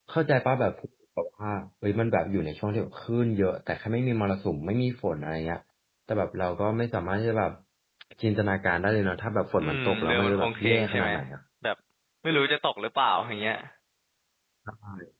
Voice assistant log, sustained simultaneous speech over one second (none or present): present